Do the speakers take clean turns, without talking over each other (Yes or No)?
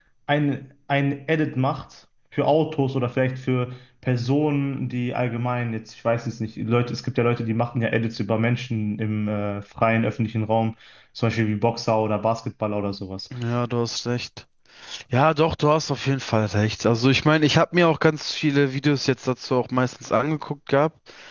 Yes